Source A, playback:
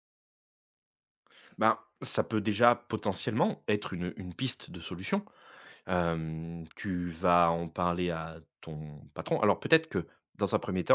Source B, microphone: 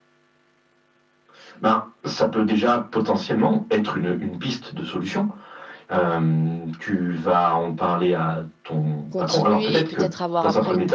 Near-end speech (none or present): present